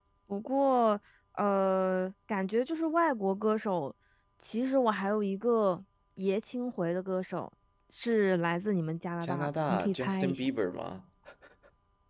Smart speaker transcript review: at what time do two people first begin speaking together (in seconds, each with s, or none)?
9.2 s